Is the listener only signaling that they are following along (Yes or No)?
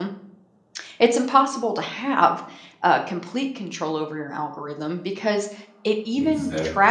Yes